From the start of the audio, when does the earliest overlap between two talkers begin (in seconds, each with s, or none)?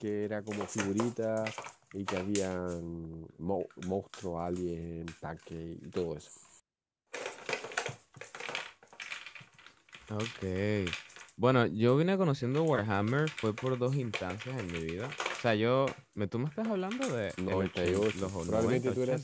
17.4 s